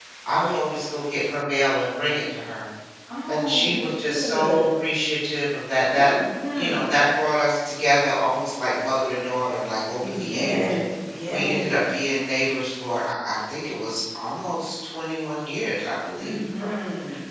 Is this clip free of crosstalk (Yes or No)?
No